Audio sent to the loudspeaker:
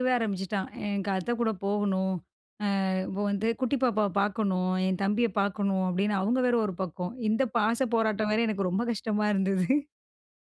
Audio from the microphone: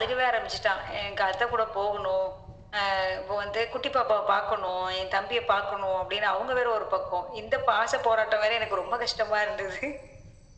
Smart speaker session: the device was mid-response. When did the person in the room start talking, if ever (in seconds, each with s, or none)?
none